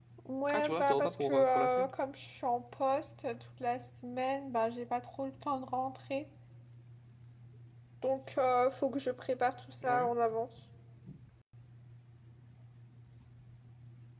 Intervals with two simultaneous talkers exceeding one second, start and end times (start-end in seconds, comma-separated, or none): 0.5-1.9